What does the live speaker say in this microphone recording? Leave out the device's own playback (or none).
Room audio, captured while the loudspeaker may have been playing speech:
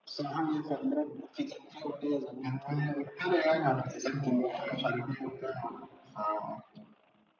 none